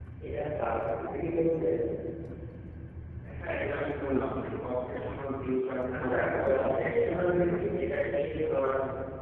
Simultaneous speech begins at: 6 s

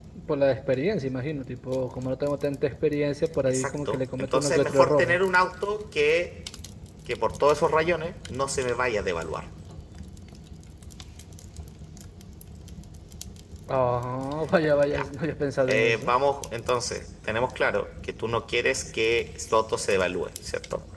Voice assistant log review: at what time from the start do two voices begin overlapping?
3 s

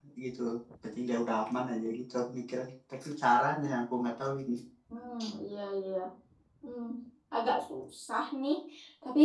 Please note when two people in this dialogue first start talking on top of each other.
none

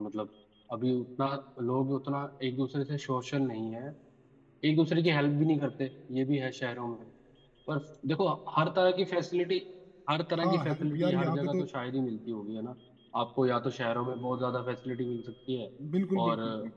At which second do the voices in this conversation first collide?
10 s

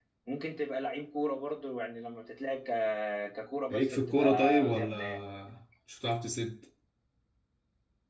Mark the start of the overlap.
4 s

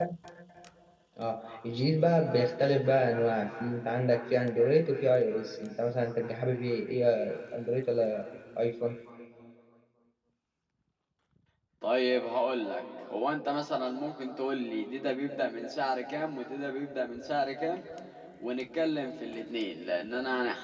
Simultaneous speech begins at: none

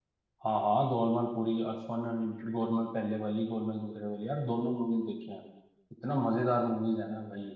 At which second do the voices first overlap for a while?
none

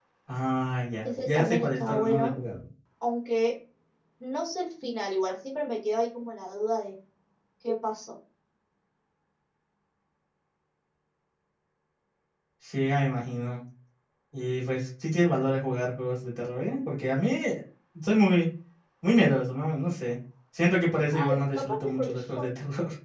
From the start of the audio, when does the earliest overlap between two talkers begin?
1 s

